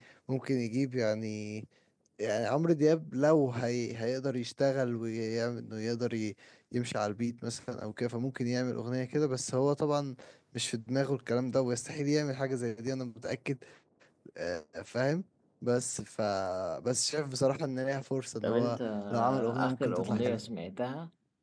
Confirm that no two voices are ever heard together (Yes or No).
No